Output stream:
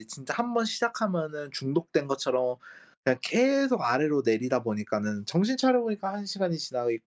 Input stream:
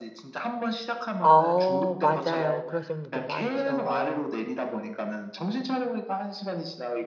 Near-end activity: present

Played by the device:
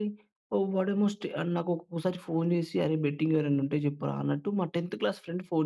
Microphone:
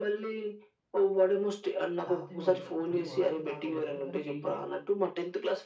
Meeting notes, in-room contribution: present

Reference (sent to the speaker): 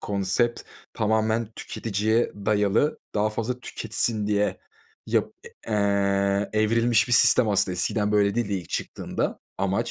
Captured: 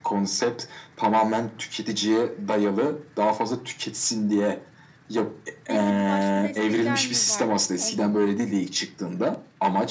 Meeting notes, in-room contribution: present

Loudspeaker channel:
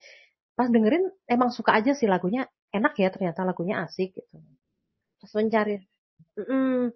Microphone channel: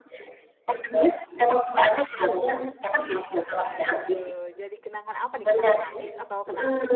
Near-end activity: present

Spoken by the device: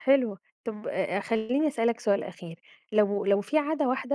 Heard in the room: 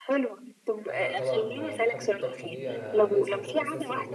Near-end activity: present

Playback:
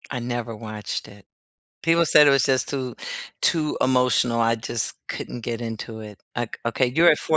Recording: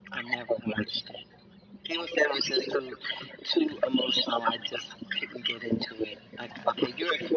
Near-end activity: none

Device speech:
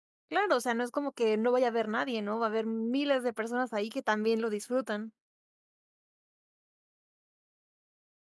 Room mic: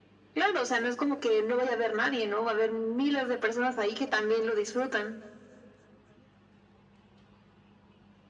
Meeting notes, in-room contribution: none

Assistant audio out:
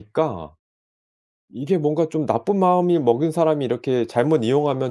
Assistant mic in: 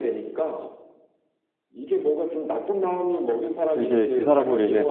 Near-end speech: present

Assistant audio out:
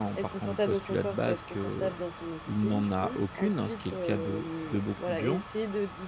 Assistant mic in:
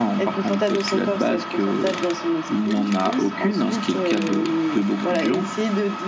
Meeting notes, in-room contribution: none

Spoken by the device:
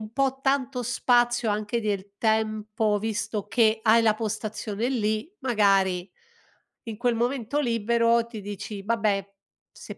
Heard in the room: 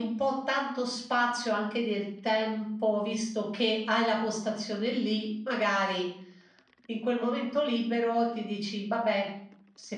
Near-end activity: none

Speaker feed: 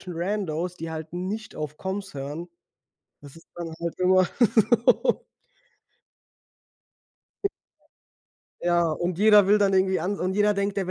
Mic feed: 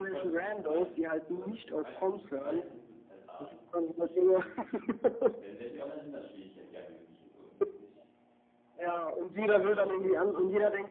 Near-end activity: present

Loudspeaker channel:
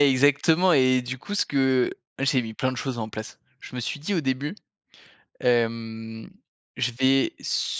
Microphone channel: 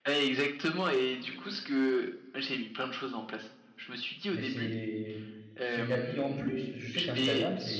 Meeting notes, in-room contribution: present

